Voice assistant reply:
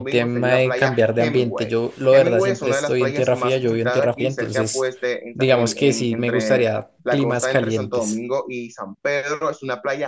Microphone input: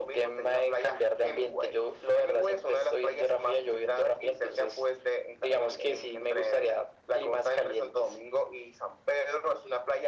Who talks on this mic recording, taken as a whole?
echo only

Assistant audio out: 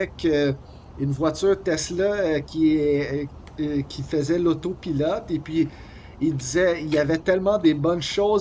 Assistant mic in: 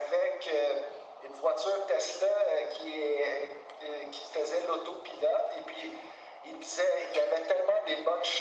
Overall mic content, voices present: echo only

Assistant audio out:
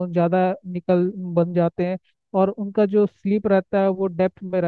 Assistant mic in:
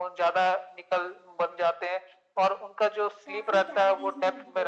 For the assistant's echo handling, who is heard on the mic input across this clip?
both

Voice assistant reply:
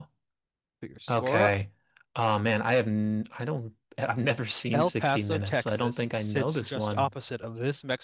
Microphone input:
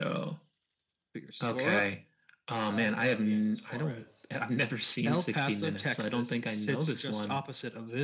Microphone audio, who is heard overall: both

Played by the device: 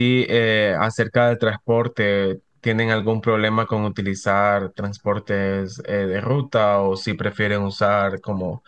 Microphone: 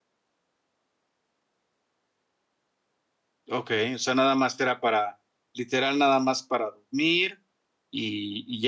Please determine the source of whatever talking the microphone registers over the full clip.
user only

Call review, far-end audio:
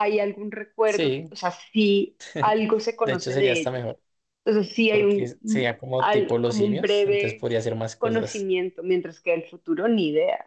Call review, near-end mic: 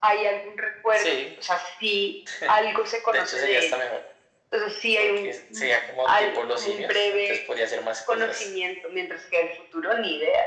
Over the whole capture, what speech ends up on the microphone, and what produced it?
echo only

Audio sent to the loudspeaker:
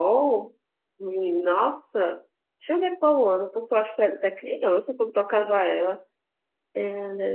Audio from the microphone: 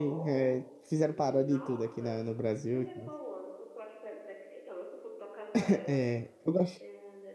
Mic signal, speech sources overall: both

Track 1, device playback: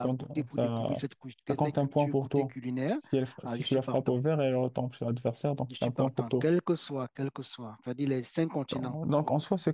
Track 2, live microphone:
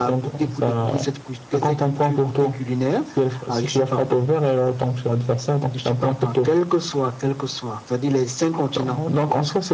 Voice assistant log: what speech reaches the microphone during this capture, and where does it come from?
echo only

